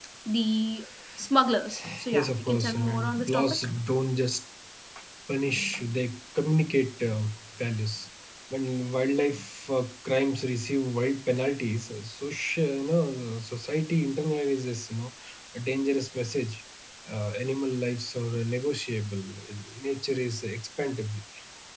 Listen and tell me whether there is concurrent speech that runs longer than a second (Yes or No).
Yes